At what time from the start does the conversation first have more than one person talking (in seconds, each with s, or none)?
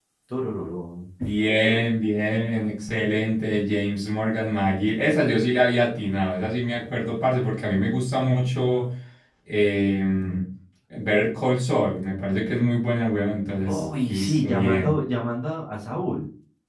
13.6 s